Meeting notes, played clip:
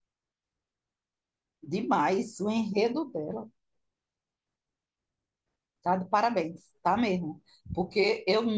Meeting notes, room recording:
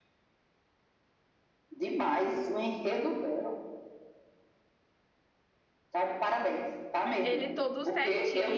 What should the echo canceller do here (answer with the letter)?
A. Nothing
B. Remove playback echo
B